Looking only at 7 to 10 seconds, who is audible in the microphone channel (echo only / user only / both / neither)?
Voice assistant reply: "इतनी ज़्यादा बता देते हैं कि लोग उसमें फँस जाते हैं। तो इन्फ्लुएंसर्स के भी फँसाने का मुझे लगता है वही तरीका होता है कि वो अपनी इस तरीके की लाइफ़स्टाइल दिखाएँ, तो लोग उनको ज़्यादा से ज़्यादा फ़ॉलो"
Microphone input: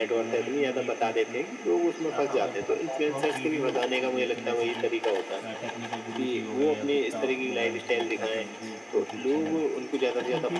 both